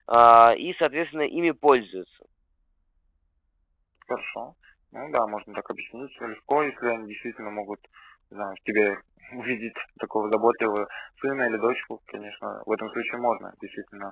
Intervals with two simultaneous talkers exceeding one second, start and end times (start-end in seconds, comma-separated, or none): none